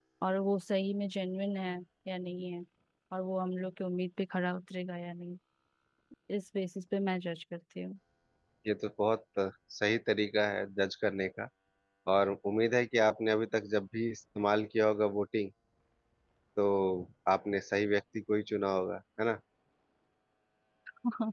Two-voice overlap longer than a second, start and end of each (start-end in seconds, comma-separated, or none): none